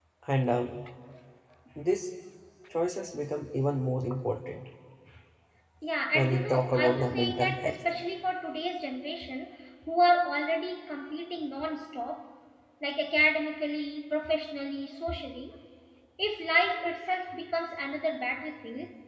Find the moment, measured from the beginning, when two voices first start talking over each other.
6 s

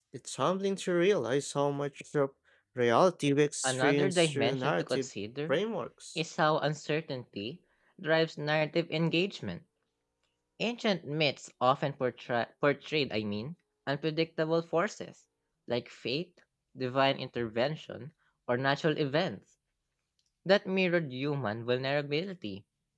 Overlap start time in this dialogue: 4 s

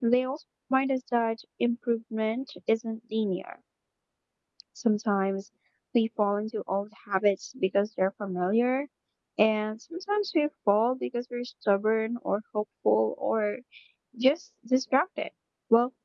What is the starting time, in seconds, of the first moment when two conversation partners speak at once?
none

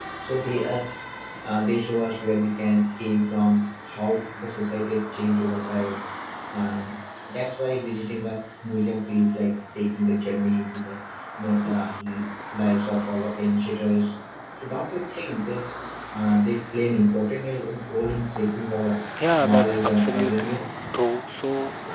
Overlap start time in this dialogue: 19 s

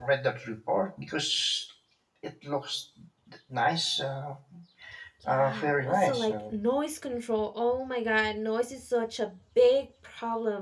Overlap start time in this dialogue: 5 s

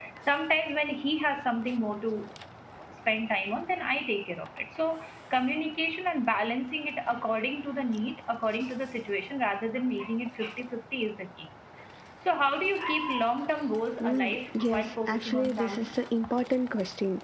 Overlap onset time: 14 s

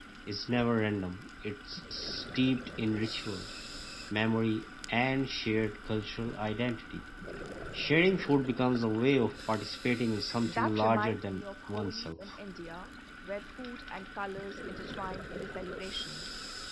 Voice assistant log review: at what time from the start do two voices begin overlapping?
10 s

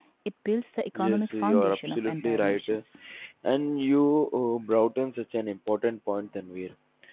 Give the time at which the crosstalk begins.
1 s

